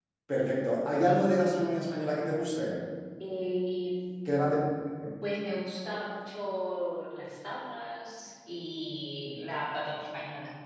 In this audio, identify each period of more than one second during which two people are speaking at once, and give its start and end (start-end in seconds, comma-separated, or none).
none